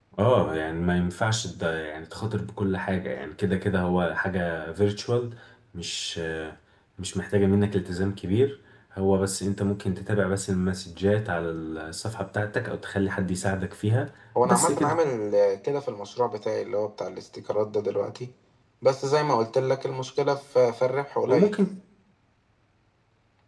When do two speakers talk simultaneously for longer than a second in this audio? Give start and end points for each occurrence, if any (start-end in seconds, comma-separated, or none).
none